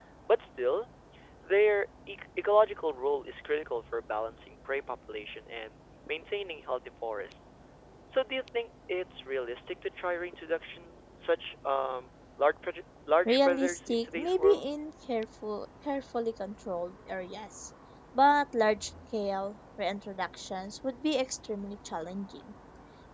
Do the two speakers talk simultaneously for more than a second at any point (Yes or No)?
Yes